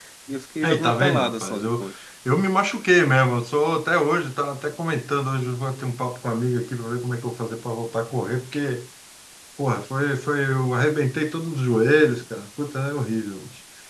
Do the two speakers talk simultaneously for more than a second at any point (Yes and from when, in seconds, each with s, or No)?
Yes, from 0.6 s